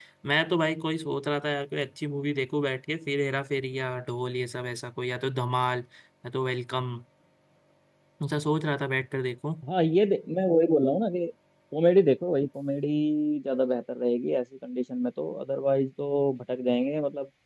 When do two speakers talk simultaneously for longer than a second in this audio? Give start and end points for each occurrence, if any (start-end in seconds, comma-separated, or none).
none